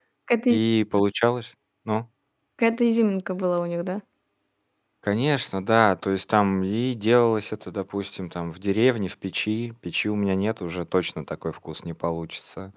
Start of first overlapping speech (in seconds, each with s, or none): none